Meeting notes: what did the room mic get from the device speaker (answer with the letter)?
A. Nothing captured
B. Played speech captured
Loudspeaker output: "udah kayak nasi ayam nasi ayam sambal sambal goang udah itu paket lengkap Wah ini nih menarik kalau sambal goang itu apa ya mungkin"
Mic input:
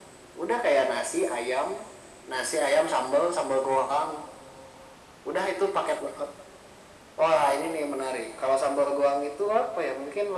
B